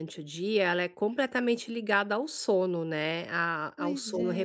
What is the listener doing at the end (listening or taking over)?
listening